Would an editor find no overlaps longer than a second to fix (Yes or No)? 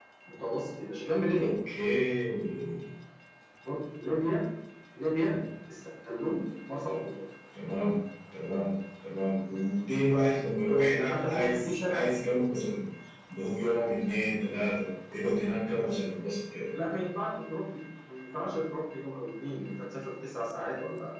No